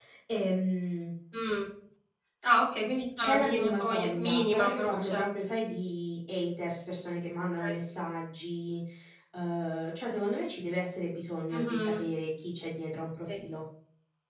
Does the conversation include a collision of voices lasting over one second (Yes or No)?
Yes